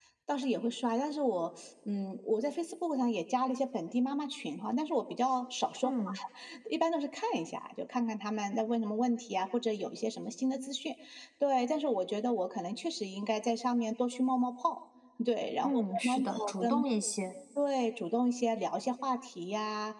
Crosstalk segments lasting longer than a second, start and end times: 15.6-16.8

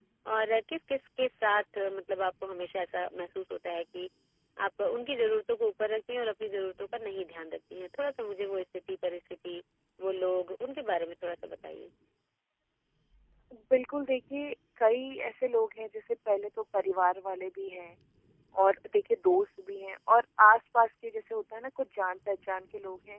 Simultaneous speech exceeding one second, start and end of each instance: none

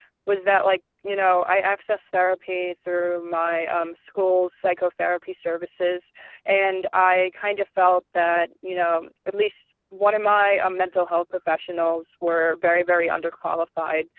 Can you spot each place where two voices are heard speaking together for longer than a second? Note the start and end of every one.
none

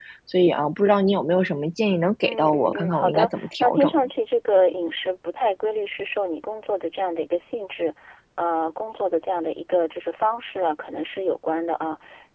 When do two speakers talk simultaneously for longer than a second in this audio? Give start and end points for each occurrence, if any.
2.2-3.9

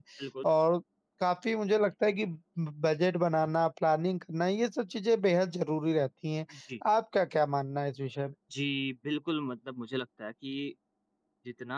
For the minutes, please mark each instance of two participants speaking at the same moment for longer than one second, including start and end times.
none

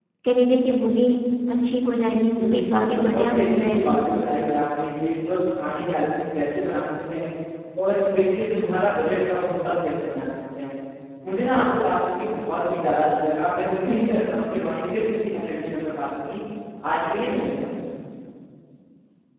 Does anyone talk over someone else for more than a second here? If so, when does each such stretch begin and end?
2.4-4.0

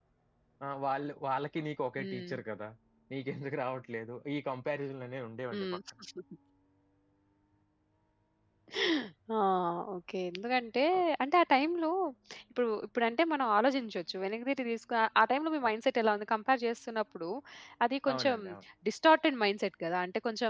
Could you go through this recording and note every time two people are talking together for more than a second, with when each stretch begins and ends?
none

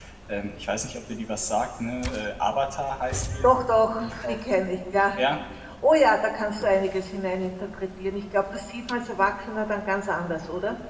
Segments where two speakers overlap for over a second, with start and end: none

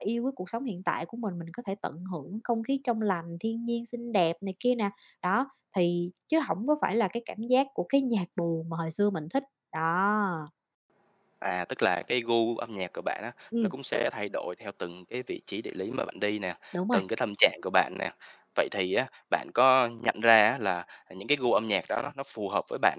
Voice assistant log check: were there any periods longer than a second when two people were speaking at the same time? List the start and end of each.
none

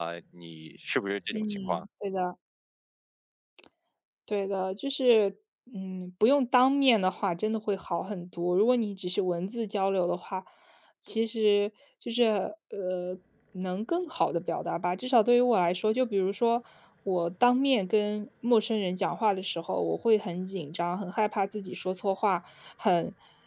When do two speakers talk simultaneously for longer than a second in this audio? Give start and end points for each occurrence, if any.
none

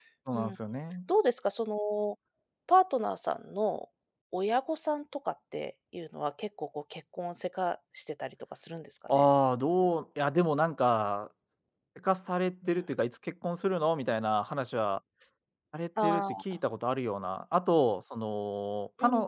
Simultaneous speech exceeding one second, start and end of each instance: none

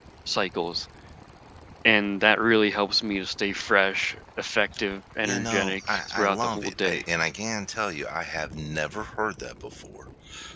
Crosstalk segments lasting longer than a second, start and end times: 5.2-7.0

